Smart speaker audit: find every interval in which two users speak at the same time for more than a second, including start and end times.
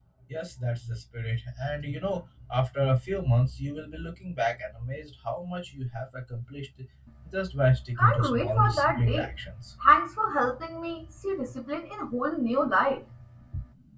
8.0-9.3

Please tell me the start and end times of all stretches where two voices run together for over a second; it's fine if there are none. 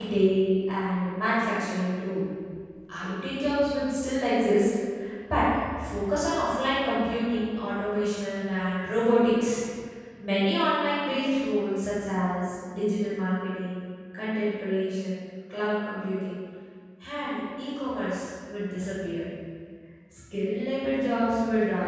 none

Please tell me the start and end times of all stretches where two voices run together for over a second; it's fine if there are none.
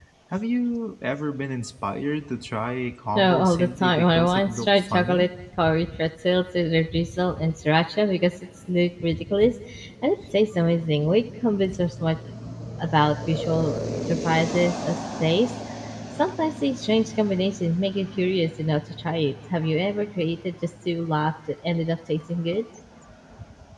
3.1-5.3

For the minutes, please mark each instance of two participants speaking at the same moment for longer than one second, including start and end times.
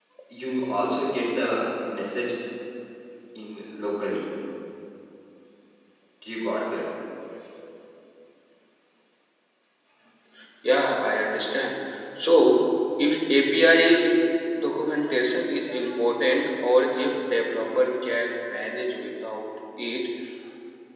none

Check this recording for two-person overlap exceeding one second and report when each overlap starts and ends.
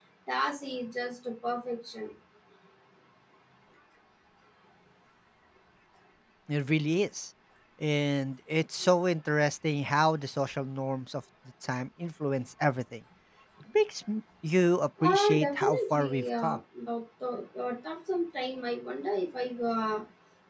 15.0-16.6

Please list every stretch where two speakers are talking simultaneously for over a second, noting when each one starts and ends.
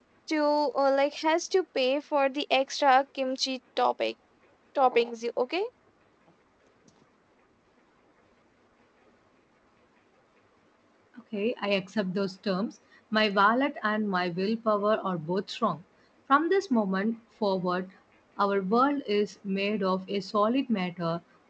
none

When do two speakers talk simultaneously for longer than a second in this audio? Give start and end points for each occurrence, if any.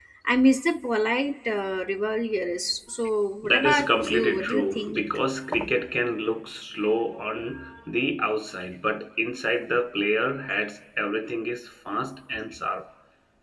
3.4-5.0

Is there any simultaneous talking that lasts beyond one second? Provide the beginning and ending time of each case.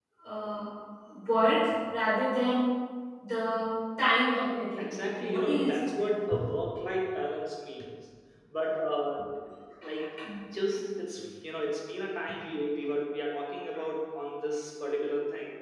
4.8-6.0

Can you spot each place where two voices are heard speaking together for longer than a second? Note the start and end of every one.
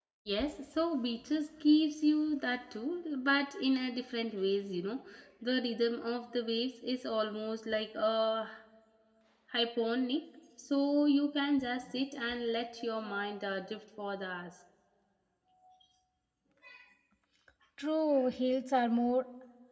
none

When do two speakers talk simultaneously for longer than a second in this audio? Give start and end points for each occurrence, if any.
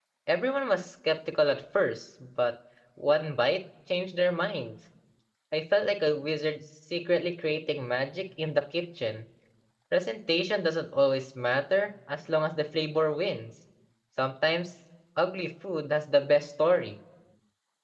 none

